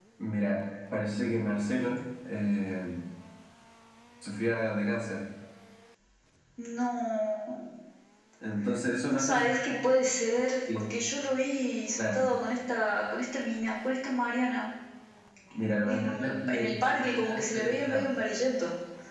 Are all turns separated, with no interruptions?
No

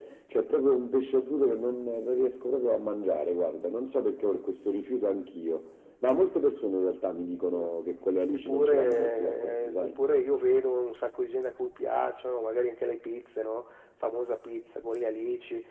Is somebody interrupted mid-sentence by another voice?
Yes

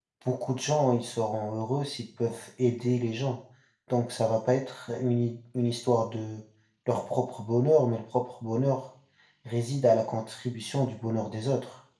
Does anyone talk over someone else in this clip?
No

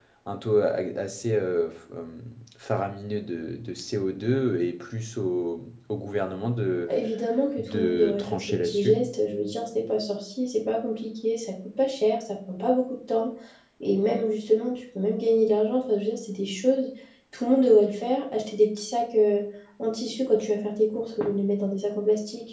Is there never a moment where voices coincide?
No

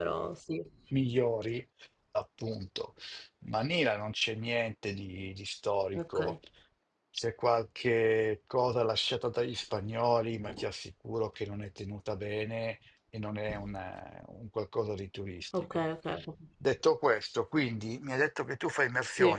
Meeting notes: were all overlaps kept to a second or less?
Yes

